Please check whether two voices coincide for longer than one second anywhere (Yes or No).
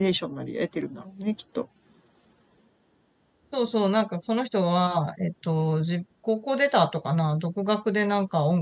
No